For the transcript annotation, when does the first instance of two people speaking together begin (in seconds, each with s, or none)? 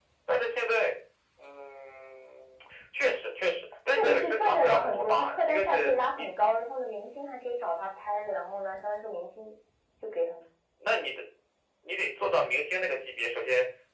3.9 s